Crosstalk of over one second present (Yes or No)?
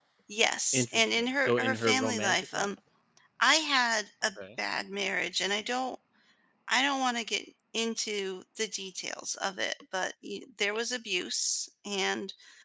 Yes